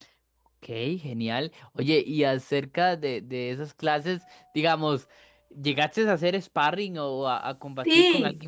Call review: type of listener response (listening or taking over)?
taking over